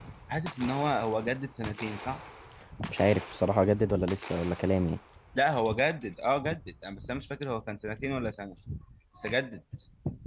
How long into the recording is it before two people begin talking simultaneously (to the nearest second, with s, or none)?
none